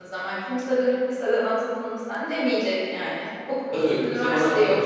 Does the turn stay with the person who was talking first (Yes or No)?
No